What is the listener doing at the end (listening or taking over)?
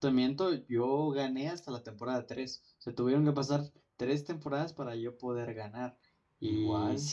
listening